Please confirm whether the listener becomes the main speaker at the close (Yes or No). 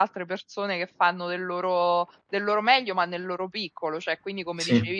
No